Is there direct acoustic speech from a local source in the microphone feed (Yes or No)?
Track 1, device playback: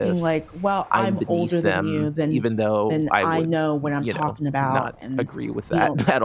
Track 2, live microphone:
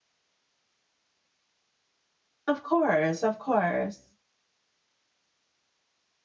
Yes